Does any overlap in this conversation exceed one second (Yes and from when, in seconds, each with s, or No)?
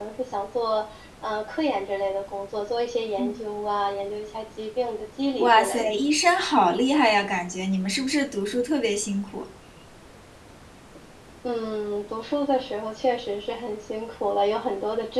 No